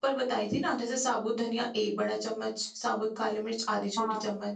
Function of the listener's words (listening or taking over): listening